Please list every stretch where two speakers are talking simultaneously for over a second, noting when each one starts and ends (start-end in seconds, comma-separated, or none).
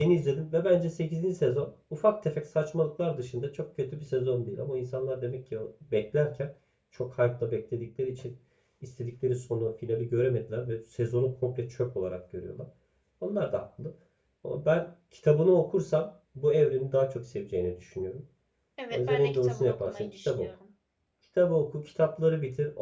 18.9-20.5